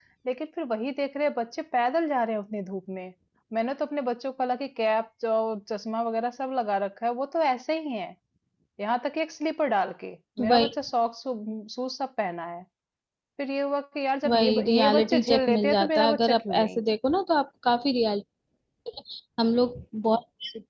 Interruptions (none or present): present